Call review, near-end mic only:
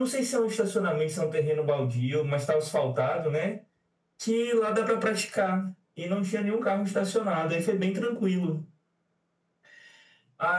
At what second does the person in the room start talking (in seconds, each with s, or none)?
none